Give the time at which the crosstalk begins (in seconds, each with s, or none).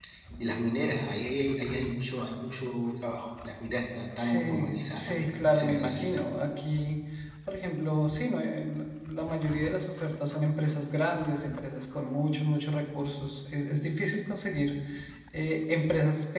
4.2 s